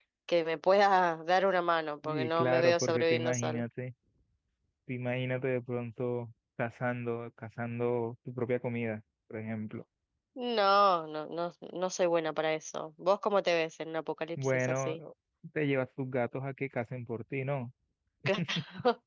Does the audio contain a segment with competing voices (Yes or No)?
Yes